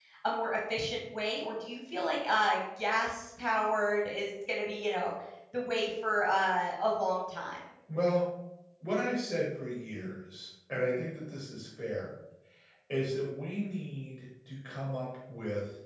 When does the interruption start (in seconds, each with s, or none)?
none